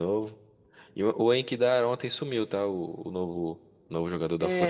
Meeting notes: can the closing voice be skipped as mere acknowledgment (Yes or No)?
No